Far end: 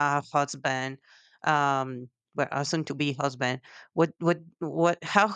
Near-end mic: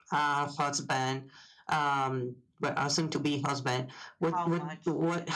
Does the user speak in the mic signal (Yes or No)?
Yes